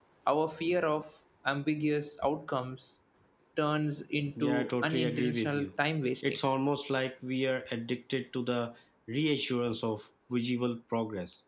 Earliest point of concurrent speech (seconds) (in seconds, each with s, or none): 4.4 s